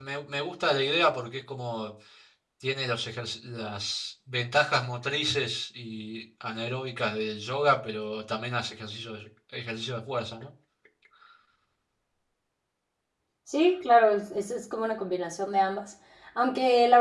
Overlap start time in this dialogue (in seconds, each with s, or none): none